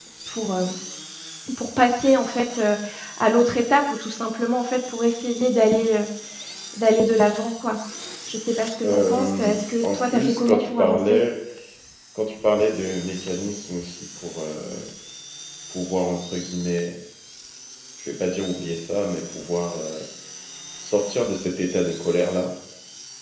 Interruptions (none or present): present